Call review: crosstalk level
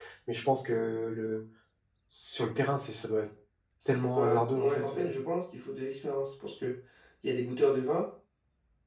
present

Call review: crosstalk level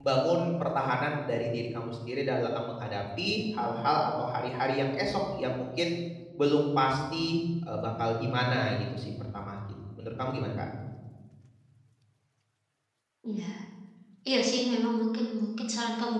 none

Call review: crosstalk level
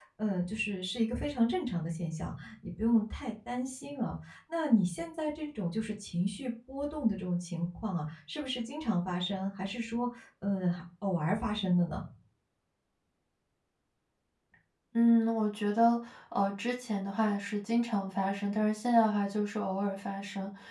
none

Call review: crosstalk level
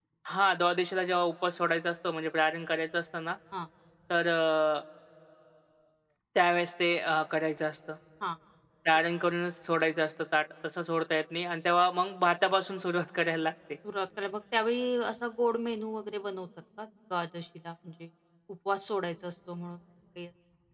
none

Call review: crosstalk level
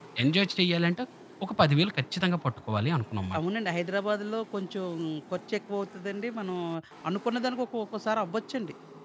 none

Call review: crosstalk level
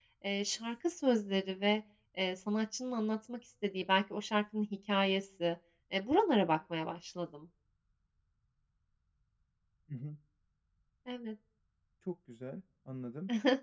none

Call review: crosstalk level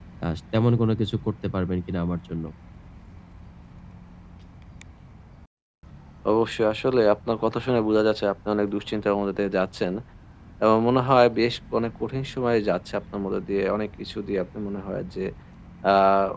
none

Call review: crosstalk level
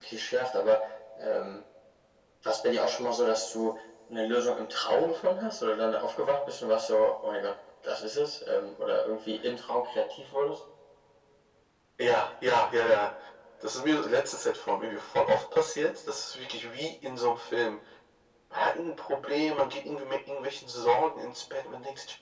none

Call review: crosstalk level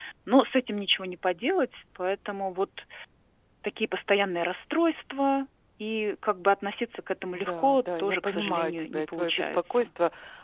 present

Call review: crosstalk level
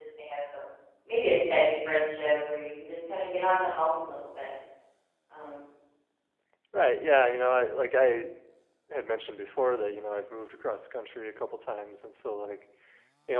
none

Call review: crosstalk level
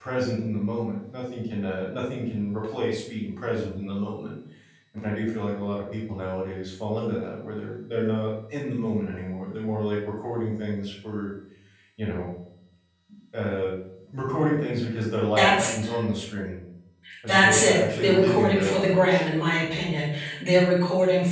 present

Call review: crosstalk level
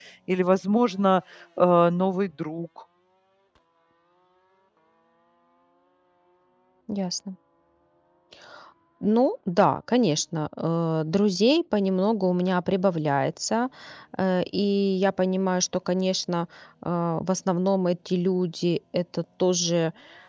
none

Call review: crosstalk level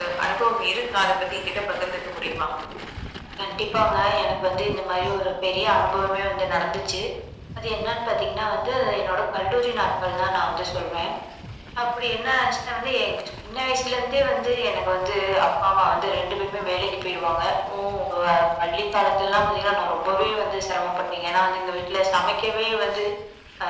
none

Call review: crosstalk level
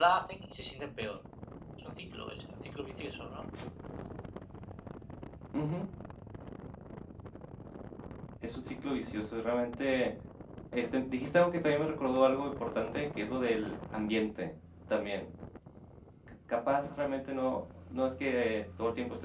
none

